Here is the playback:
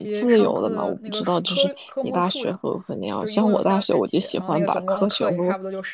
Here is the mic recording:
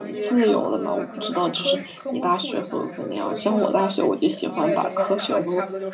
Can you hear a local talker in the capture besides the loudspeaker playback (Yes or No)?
Yes